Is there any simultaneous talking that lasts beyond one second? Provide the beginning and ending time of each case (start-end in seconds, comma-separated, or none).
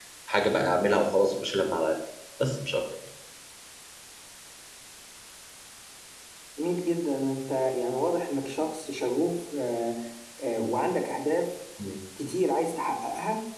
none